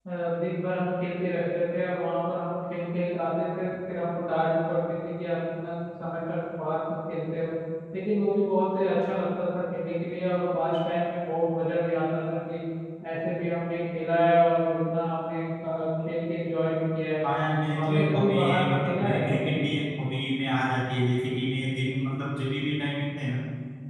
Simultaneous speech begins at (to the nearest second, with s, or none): 18 s